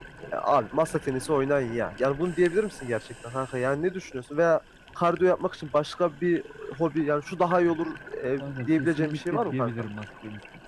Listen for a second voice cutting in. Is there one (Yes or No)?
Yes